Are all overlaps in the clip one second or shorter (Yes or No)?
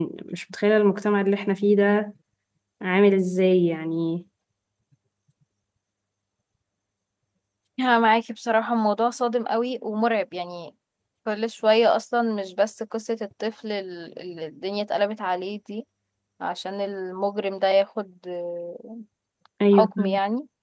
Yes